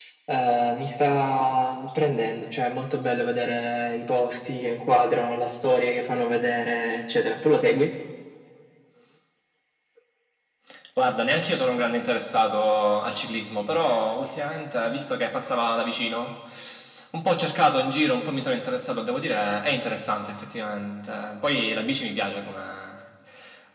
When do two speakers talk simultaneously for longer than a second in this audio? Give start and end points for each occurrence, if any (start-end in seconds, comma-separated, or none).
none